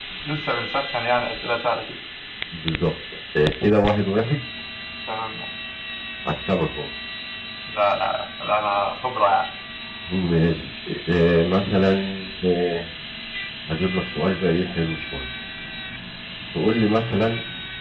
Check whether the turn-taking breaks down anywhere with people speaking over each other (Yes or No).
No